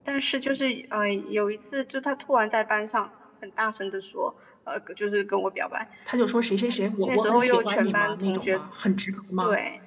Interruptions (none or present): present